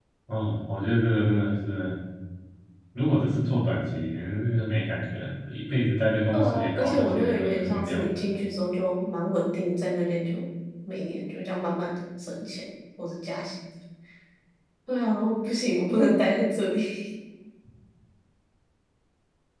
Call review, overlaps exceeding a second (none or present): present